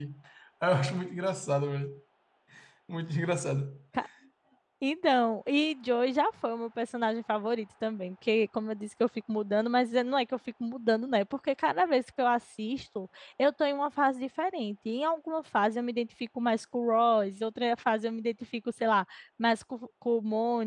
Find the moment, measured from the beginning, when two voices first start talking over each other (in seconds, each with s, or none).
none